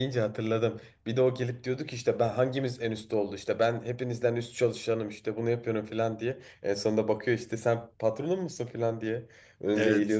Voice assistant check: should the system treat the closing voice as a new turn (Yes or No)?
Yes